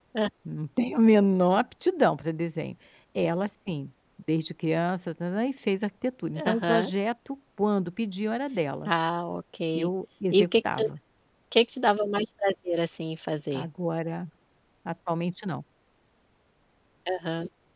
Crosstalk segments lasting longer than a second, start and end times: none

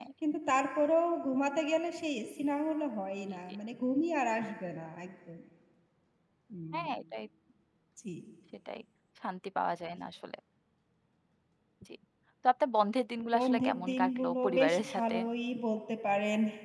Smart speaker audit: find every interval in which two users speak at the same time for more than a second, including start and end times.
13.3-15.2

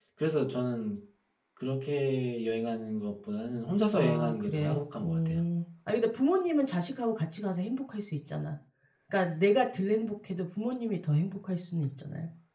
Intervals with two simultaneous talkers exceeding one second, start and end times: 3.9-5.4

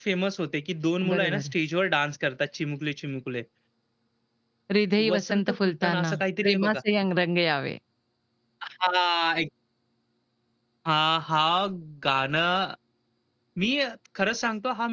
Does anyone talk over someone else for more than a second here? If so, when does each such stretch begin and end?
5.0-6.8

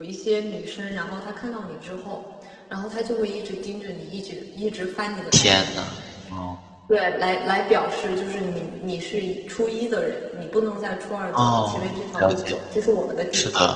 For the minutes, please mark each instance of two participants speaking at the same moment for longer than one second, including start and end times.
11.3-12.6

